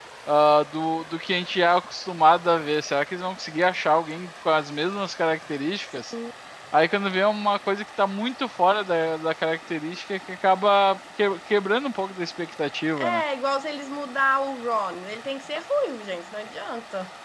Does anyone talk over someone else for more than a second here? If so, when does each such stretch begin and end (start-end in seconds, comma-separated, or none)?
none